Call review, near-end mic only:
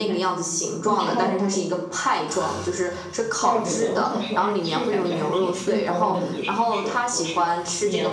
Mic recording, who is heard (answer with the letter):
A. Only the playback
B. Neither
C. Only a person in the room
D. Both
D